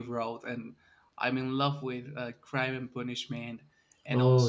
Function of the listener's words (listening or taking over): listening